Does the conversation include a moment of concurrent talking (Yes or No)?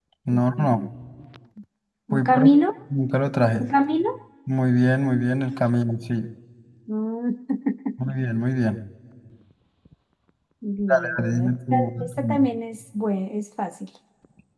Yes